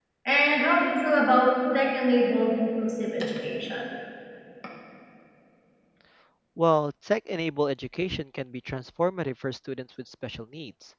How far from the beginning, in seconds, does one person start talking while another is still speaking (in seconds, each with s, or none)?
none